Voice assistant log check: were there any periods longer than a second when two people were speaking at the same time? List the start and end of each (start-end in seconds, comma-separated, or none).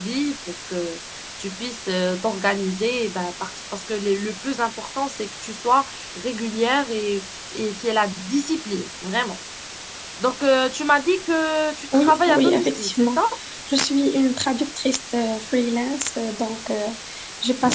11.9-13.2